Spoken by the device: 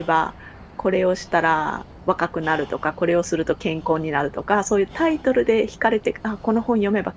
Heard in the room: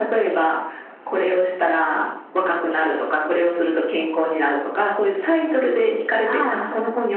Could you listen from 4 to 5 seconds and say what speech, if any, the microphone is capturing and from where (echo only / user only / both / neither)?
echo only